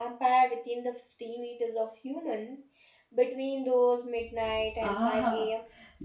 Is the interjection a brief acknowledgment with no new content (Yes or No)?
No